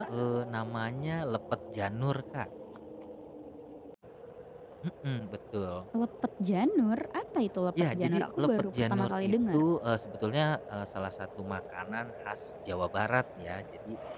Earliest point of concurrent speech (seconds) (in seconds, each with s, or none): 7.8 s